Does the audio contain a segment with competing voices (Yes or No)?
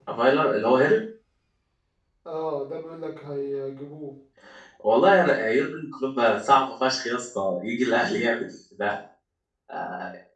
No